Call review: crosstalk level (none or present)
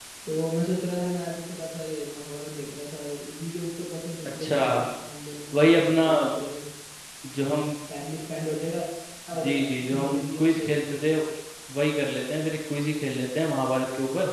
present